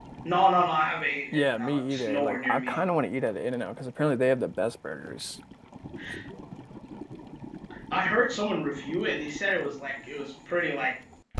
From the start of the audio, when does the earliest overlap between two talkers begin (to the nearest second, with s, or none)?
1 s